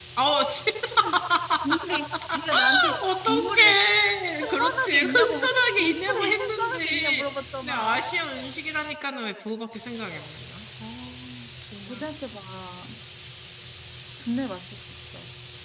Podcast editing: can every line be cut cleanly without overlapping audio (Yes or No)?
No